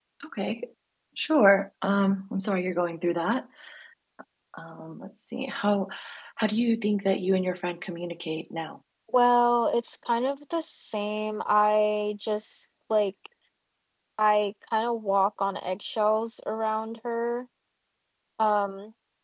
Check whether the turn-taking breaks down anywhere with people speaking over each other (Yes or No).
No